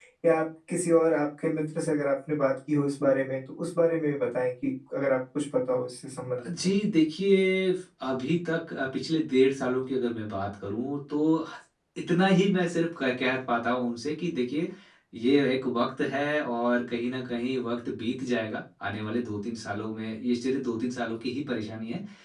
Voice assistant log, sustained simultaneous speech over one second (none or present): none